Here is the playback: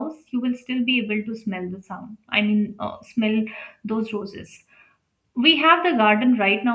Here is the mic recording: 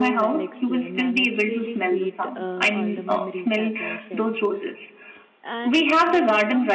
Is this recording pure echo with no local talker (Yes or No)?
No